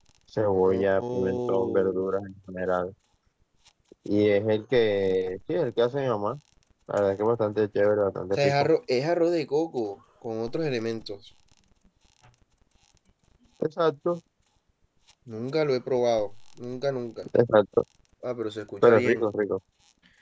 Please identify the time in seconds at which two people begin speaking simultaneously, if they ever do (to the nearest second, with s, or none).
1 s